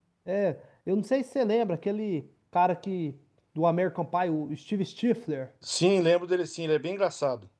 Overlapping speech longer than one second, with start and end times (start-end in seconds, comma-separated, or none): none